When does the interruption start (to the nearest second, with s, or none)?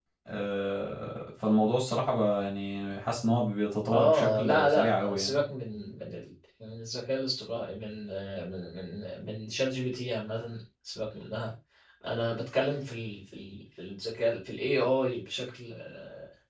4 s